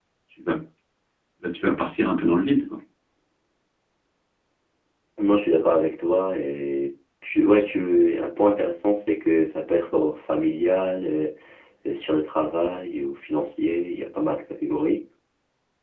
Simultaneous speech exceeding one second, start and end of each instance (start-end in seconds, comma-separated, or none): none